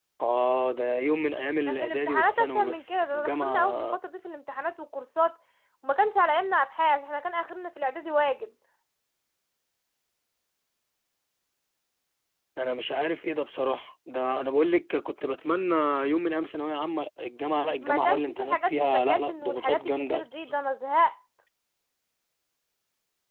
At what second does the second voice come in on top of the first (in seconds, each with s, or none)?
1.7 s